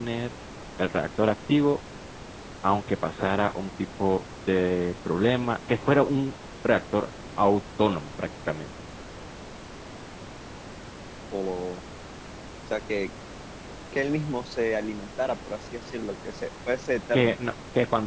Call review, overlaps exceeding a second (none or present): none